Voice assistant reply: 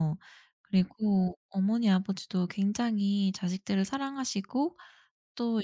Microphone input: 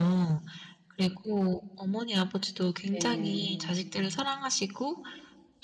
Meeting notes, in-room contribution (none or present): present